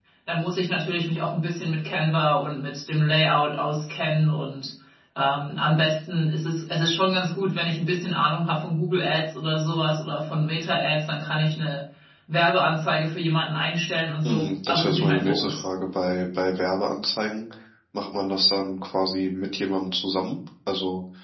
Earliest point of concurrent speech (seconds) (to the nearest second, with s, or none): 14 s